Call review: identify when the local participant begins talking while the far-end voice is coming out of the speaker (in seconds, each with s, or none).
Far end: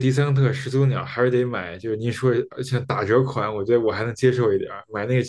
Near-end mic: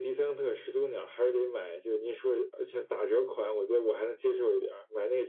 none